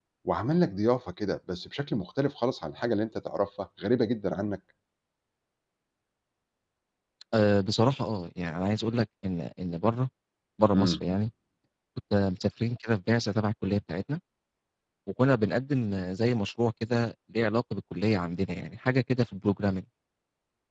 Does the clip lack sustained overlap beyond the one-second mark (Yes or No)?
Yes